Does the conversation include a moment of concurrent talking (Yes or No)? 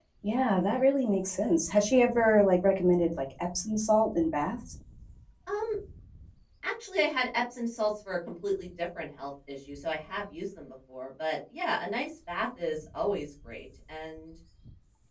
No